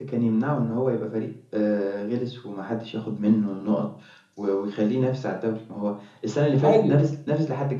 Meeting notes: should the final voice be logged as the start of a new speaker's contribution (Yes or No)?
No